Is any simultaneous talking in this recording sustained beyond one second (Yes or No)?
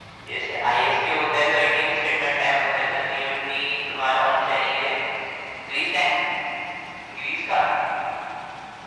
Yes